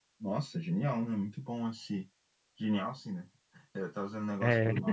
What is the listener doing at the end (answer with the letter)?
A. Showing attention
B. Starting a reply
A